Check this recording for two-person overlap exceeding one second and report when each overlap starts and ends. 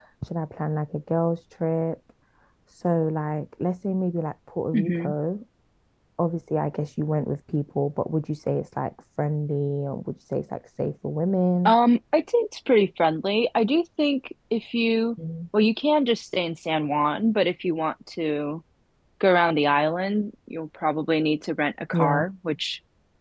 none

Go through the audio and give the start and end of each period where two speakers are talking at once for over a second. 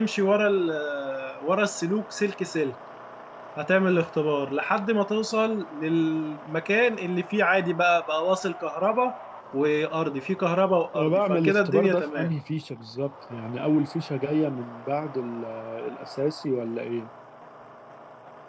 10.9-12.3

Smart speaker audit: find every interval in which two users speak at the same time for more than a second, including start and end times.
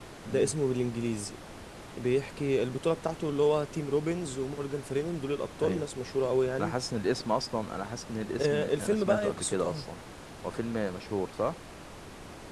8.4-9.9

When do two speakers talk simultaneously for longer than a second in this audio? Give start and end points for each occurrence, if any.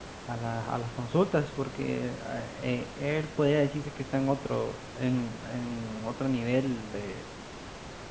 none

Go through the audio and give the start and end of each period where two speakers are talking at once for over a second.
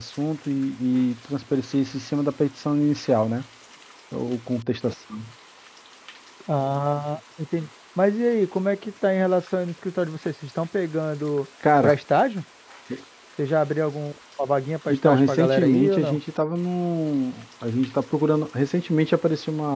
14.9-16.2

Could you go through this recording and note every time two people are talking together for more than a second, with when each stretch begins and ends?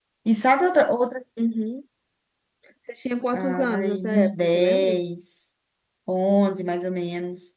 3.3-4.9

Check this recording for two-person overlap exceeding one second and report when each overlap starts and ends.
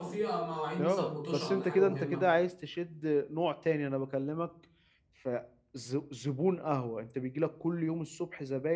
0.8-2.2

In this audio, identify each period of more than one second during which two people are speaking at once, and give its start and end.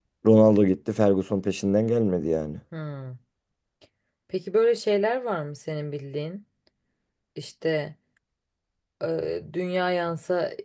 none

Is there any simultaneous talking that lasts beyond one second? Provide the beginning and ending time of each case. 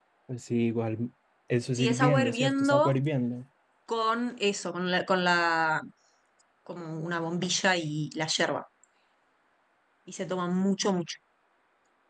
1.8-3.0

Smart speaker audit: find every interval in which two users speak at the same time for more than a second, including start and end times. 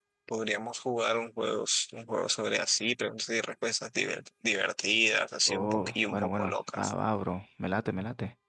5.5-6.9

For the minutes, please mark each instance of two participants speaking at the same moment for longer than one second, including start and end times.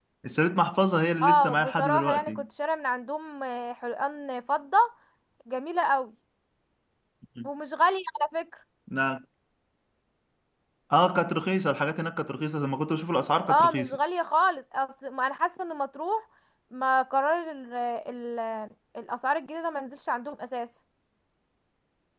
1.2-2.5

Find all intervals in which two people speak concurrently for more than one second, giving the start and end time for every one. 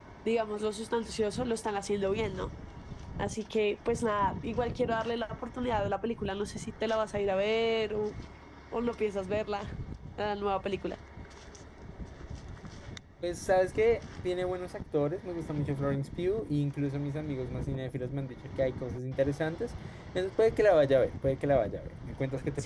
none

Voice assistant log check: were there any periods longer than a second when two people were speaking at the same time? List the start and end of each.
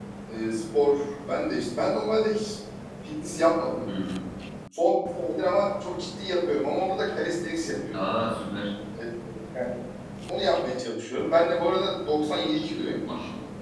none

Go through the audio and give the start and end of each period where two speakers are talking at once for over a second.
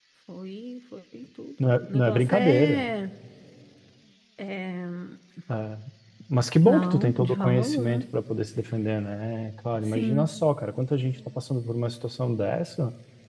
1.6-2.9, 6.6-8.0

